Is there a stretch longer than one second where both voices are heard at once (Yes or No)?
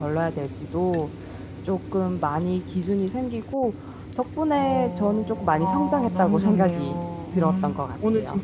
Yes